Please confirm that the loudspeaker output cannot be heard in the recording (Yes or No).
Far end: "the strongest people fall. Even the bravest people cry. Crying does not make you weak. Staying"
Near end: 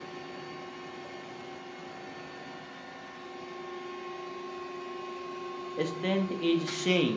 Yes